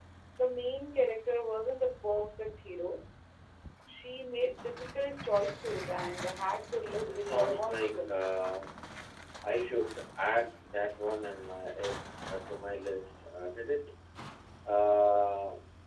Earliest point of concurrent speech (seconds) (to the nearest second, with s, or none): 7 s